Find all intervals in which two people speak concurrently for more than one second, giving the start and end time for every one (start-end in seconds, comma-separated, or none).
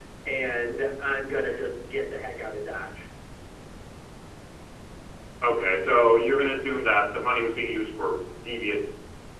none